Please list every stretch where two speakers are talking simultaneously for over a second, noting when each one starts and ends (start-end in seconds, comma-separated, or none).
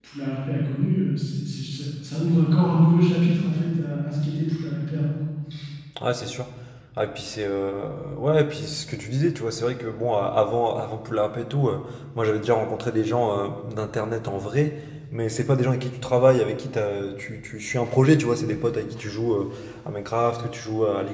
none